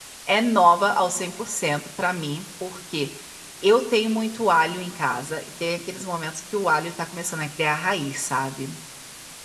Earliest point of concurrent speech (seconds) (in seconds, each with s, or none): none